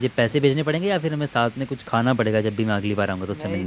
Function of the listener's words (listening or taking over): taking over